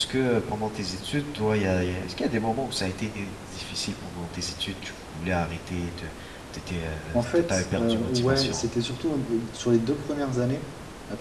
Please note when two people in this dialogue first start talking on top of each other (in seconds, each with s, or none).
7.1 s